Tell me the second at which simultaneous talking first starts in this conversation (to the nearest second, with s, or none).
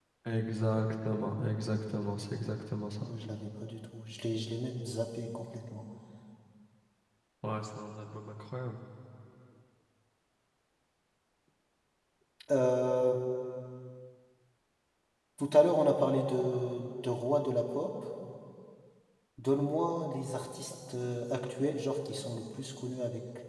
none